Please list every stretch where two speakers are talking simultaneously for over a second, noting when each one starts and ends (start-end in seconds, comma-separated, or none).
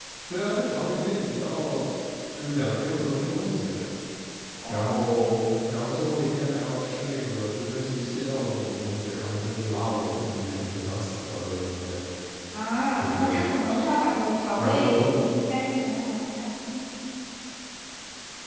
none